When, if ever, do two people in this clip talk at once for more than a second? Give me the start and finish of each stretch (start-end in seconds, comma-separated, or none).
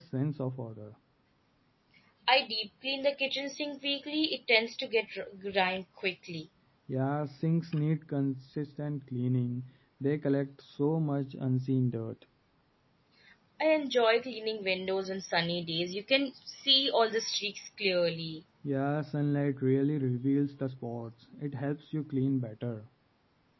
none